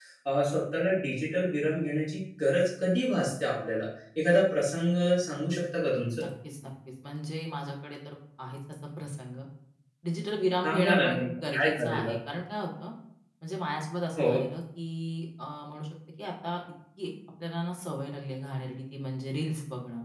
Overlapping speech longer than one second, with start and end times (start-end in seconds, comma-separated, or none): 10.6-12.1